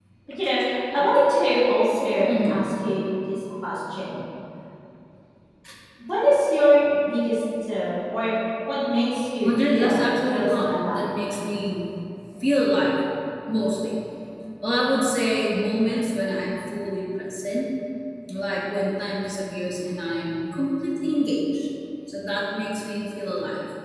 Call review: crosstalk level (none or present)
present